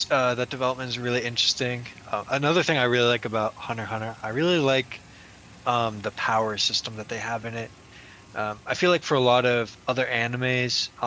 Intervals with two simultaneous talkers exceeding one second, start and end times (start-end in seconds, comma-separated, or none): none